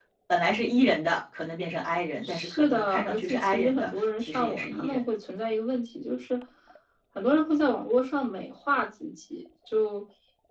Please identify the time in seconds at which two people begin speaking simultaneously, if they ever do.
2 s

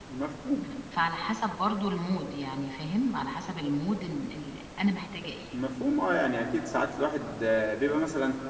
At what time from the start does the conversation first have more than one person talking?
none

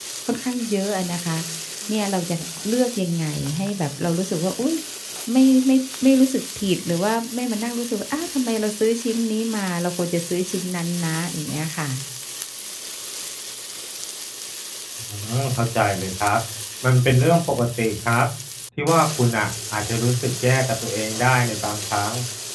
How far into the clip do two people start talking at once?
none

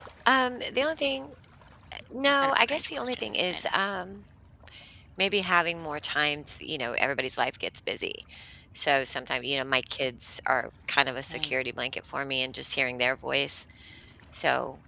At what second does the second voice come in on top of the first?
2 s

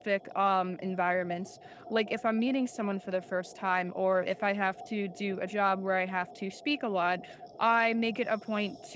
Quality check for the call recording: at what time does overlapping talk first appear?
none

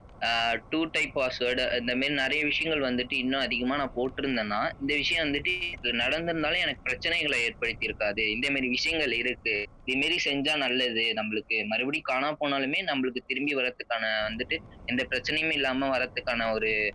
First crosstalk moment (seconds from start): none

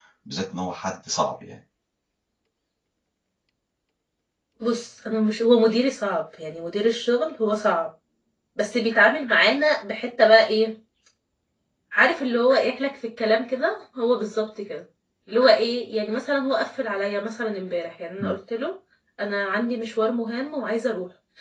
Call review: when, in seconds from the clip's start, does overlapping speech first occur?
none

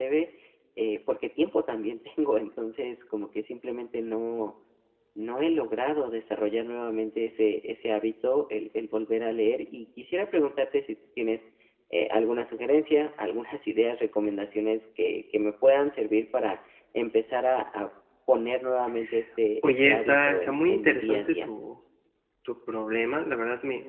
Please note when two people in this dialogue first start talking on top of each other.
20 s

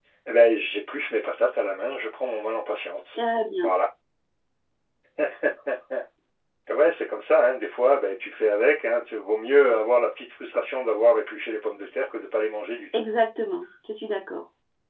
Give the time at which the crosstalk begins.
none

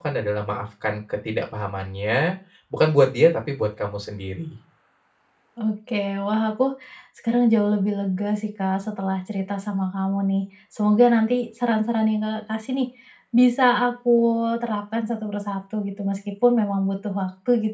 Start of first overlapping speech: none

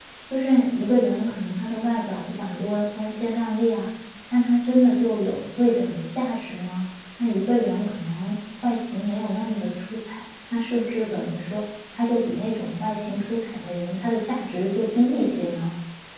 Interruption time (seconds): none

